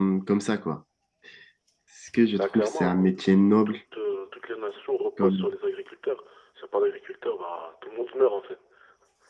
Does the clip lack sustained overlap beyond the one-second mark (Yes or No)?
No